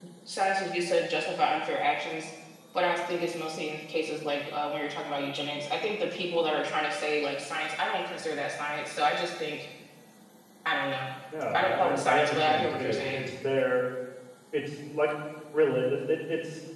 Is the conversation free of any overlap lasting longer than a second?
No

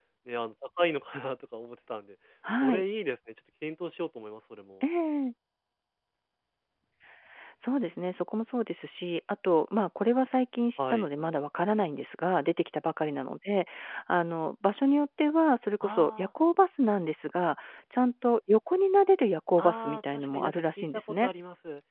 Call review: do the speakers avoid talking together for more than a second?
No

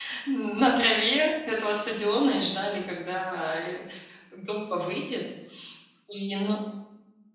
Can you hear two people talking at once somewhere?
No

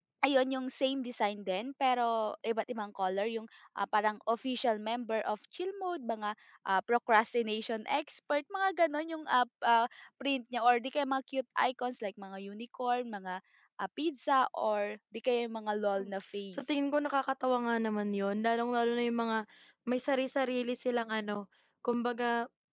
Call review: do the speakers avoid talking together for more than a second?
Yes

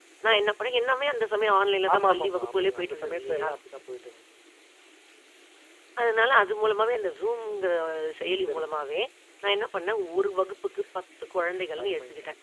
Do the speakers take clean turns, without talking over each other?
No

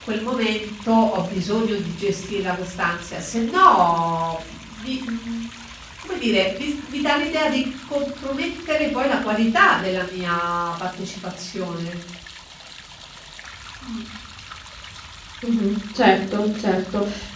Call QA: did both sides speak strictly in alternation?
Yes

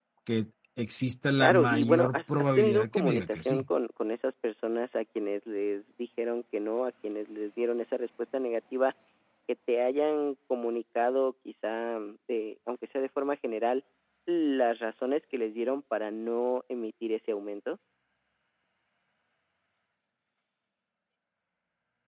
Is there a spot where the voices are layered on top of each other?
Yes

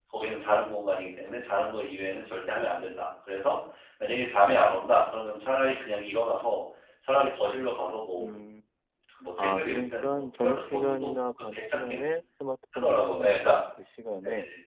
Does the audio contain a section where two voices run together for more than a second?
Yes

